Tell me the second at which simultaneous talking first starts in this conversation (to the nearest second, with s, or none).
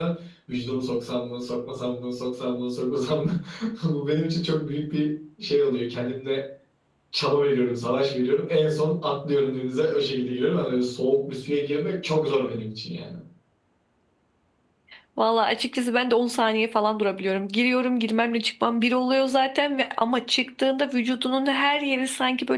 none